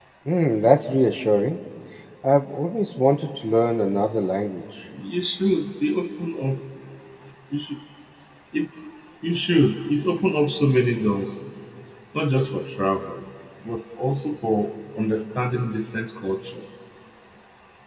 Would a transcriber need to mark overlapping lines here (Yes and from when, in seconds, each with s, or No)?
No